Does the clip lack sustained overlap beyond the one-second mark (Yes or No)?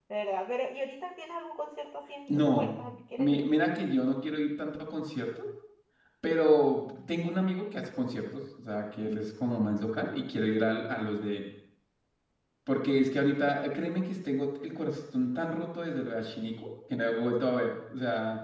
Yes